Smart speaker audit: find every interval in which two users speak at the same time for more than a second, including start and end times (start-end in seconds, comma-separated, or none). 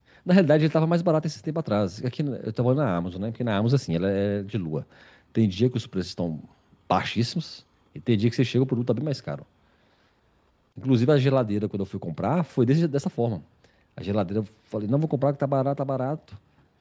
none